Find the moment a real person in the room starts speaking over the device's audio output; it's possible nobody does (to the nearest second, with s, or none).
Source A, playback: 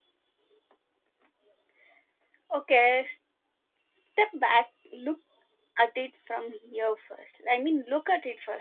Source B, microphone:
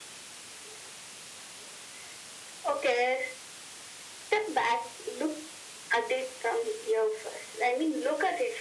none